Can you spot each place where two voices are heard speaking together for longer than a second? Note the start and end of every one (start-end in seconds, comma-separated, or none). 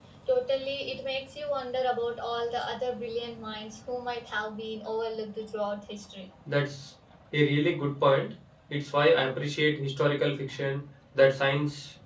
none